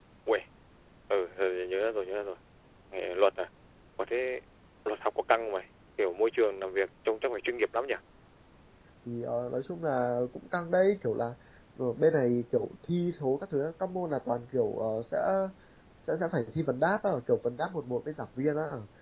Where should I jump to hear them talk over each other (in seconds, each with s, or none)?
none